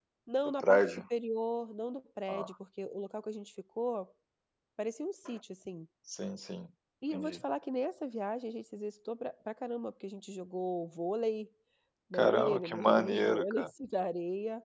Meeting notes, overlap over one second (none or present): present